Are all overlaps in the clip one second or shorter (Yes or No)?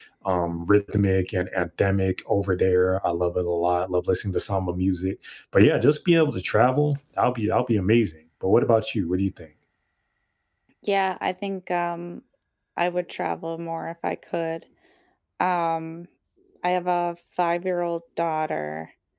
Yes